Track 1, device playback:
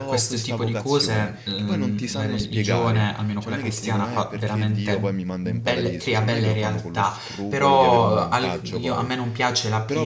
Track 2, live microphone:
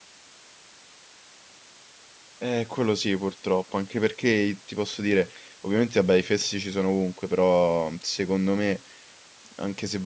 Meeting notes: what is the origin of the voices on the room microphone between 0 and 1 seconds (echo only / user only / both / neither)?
neither